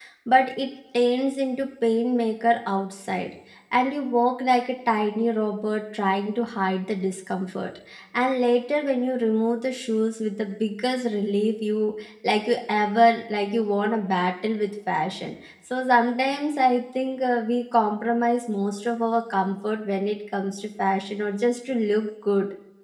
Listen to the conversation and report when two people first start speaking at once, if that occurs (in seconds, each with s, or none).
none